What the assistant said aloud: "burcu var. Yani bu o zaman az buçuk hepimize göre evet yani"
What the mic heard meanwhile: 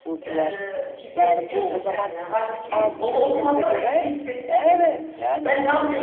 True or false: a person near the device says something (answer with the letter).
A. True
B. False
A